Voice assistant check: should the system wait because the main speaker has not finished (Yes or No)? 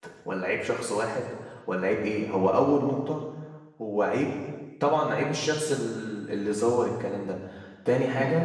Yes